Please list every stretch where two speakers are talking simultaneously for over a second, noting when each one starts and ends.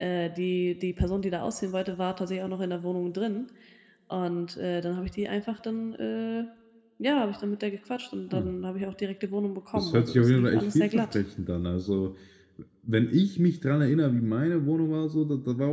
9.8-11.2

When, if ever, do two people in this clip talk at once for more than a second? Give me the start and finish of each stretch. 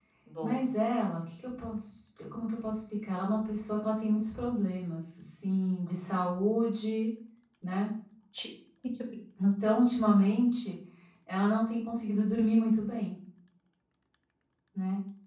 none

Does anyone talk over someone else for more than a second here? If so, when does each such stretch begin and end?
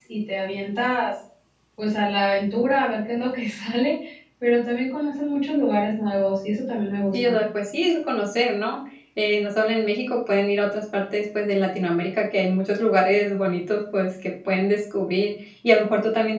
none

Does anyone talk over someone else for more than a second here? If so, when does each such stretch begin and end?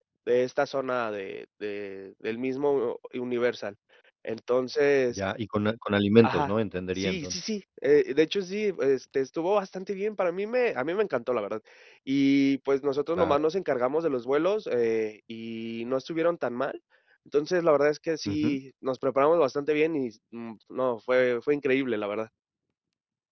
none

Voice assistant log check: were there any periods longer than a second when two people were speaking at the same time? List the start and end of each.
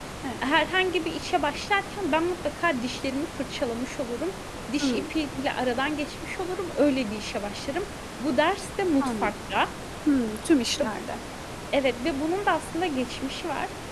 none

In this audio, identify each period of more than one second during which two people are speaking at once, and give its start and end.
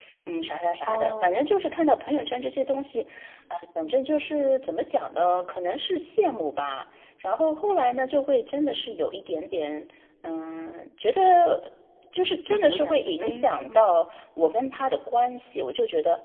0.8-2.1, 12.4-14.0

